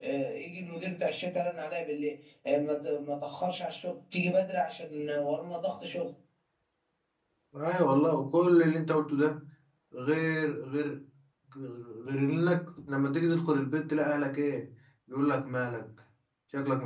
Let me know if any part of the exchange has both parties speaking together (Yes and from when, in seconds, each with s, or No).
No